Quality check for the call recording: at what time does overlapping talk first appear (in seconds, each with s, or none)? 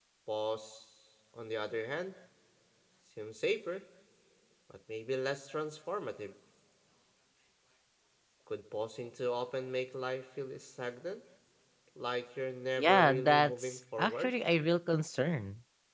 12.8 s